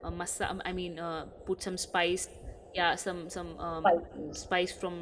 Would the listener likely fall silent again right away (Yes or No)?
Yes